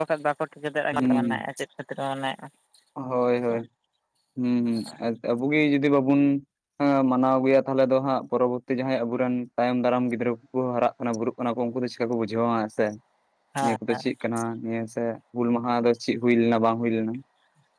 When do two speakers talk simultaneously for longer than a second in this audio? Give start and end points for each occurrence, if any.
none

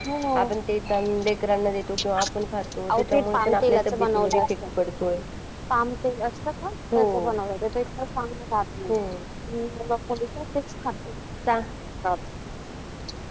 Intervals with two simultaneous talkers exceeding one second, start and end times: 2.9-4.5

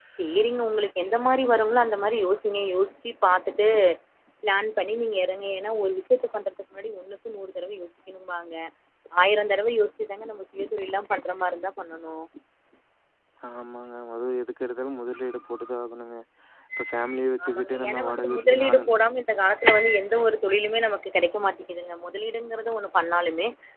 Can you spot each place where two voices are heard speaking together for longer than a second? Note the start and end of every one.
17.4-18.9

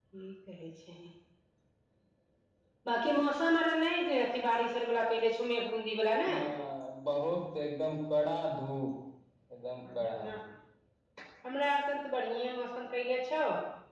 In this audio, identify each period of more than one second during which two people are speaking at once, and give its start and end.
none

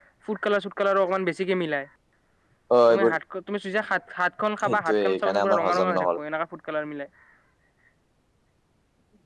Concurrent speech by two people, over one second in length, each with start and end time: 4.6-6.1

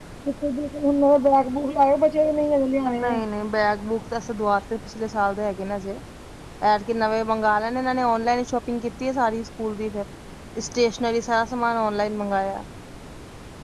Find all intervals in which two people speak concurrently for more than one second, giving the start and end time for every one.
none

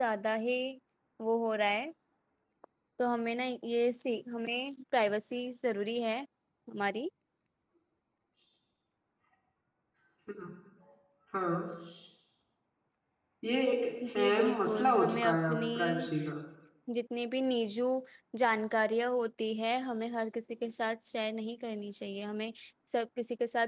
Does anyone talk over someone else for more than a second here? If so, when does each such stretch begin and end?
14.1-16.1

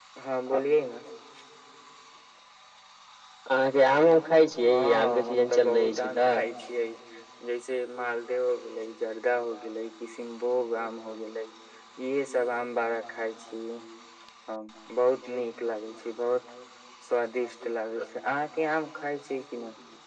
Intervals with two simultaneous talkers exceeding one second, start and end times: 4.5-6.4

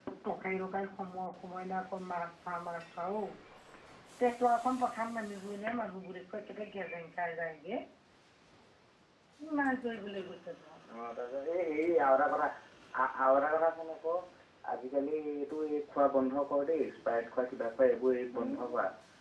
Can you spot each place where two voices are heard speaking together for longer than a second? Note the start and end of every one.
none

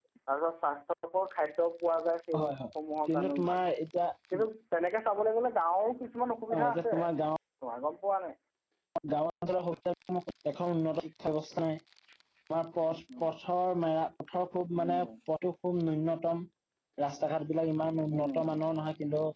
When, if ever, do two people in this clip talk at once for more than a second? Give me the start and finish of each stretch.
none

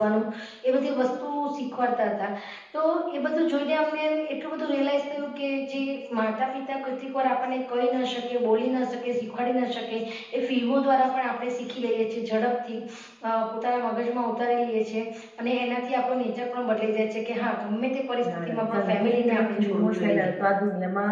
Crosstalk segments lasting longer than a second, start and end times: 18.4-20.3

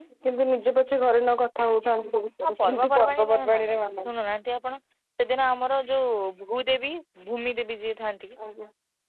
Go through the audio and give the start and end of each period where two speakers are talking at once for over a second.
2.4-4.1

